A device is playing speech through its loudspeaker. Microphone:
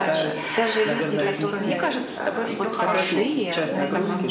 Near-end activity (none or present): present